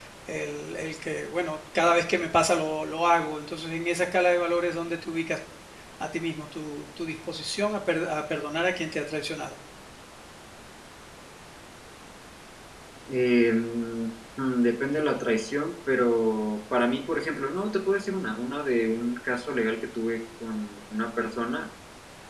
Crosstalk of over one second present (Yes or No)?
No